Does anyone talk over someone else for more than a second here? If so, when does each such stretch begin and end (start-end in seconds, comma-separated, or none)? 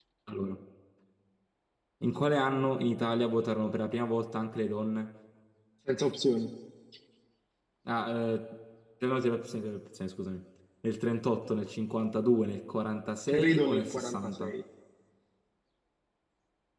13.3-14.5